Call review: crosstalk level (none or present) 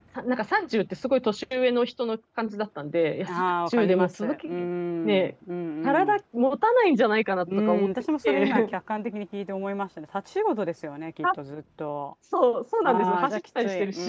present